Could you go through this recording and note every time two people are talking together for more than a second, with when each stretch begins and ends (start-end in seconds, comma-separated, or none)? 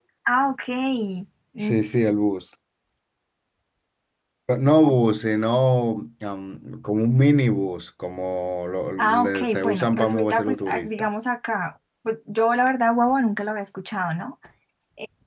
9.0-11.1